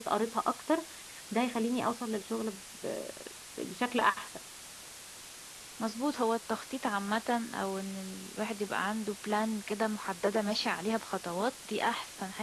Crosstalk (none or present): none